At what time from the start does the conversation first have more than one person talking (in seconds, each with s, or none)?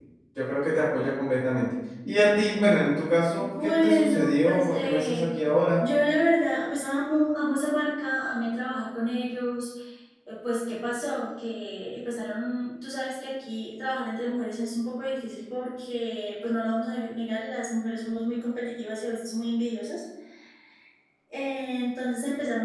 3.4 s